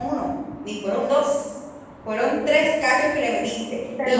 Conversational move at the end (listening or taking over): listening